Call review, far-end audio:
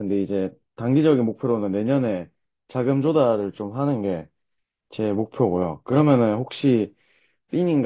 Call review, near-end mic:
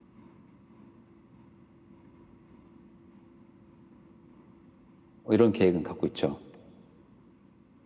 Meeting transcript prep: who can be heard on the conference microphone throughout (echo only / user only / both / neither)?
user only